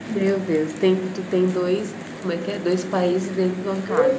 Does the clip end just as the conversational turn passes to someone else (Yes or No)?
Yes